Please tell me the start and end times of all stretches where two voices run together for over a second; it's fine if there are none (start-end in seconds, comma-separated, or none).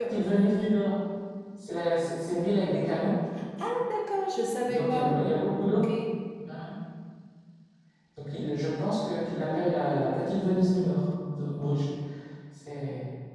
none